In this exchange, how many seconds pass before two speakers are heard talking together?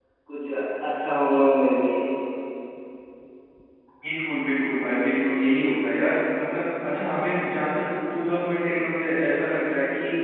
none

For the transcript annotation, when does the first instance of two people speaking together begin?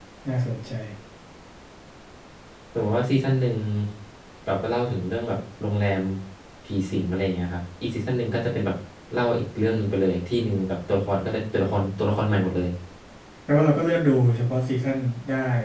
none

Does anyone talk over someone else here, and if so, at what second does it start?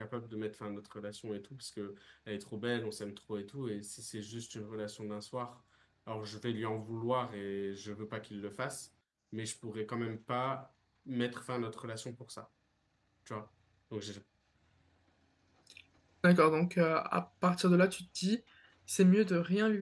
none

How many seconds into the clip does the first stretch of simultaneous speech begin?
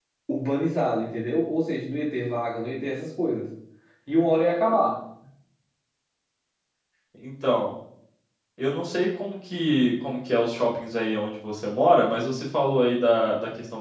none

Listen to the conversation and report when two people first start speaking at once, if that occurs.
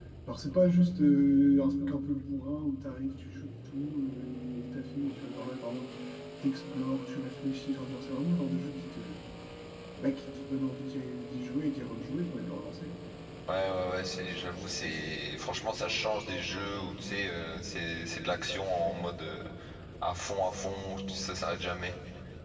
none

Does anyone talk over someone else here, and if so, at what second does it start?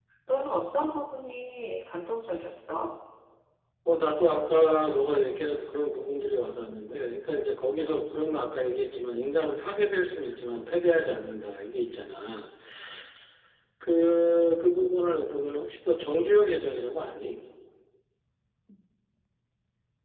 none

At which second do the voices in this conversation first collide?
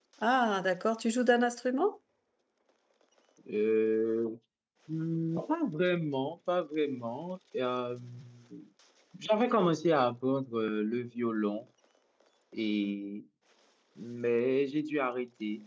none

